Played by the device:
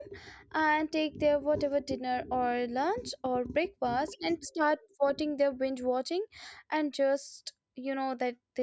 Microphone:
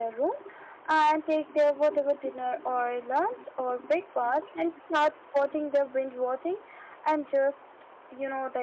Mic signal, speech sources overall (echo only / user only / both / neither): echo only